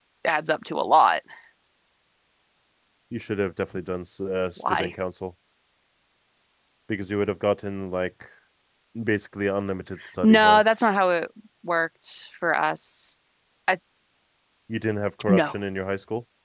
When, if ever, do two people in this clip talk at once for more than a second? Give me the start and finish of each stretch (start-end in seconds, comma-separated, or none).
none